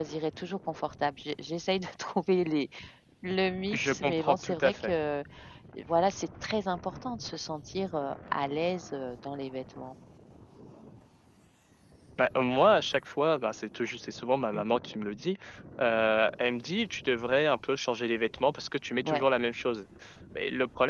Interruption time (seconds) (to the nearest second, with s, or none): 4 s